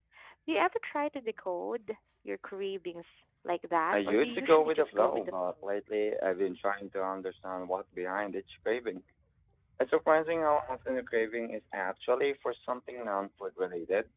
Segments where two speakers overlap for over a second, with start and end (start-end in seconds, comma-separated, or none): 3.9-5.5